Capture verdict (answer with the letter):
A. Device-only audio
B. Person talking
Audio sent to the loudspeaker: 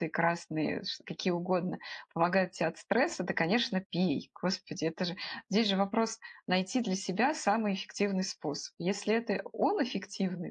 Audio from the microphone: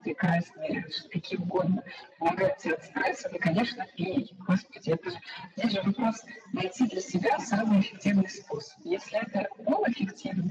A